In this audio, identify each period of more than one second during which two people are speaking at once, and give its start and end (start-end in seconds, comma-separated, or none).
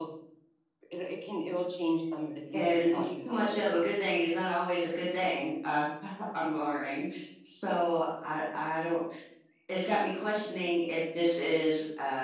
2.5-3.9